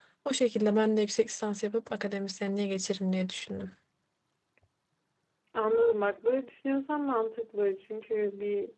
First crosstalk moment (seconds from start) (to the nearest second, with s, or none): none